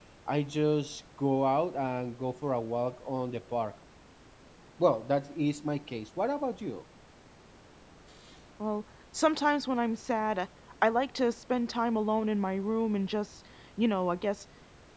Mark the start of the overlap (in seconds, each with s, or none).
none